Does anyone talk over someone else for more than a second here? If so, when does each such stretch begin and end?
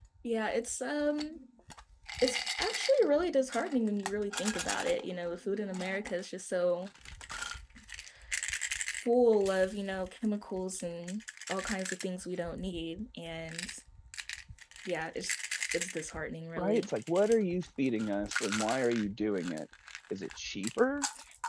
none

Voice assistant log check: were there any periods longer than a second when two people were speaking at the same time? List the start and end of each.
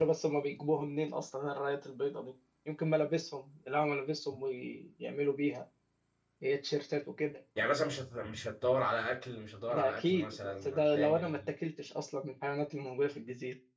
9.7-11.5

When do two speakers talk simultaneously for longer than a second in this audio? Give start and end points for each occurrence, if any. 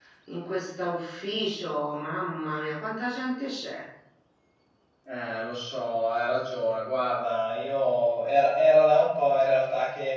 none

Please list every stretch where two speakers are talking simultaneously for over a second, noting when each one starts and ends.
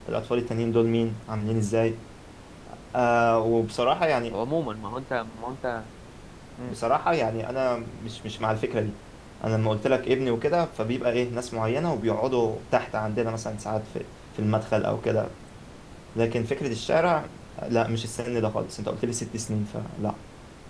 none

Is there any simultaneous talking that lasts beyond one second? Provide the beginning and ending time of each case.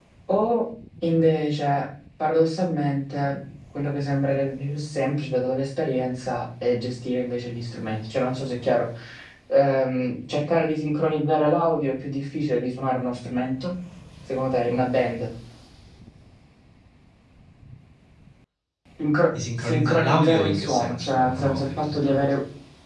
19.6-22.3

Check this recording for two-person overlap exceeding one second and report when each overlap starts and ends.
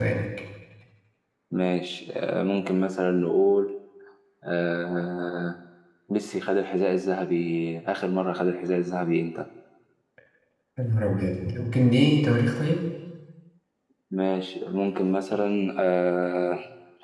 none

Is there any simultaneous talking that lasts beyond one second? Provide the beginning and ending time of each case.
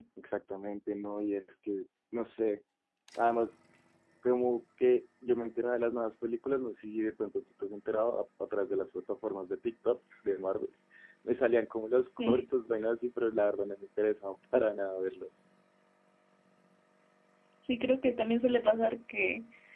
none

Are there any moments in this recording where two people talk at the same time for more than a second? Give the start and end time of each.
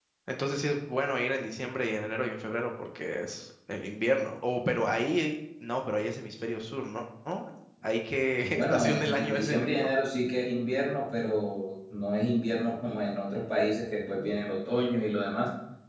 8.5-9.9

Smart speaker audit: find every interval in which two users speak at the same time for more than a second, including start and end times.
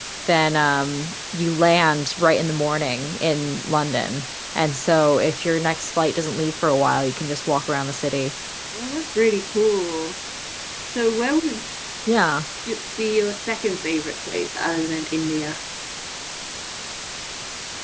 none

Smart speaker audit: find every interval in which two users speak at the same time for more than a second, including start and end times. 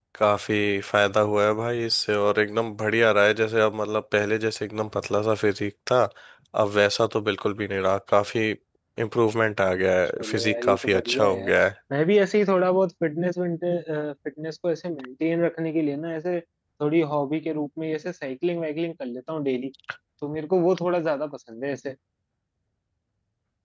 10.2-11.5

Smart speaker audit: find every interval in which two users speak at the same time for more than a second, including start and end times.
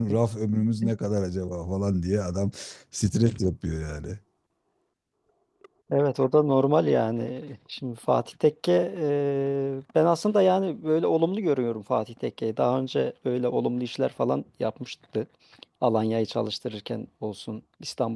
none

